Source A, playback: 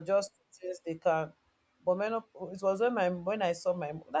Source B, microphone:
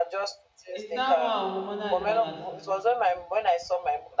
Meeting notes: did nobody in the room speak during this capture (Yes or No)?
No